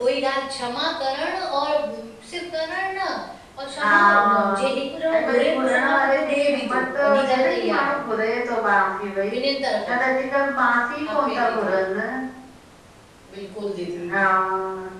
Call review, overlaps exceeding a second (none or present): present